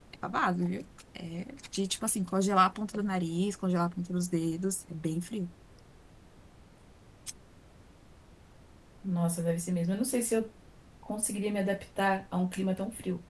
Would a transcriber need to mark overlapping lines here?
No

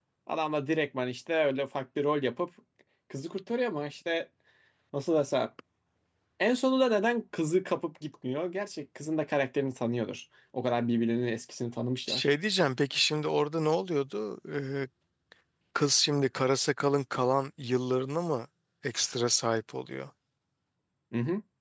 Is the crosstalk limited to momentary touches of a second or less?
Yes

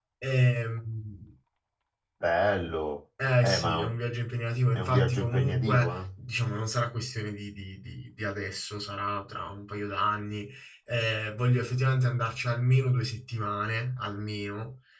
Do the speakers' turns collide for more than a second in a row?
Yes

